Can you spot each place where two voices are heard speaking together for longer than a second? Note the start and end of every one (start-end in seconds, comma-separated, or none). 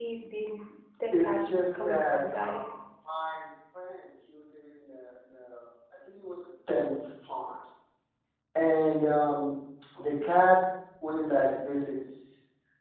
1.2-2.6